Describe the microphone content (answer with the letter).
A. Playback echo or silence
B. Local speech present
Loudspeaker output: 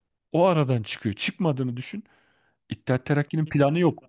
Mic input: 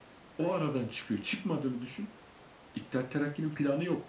A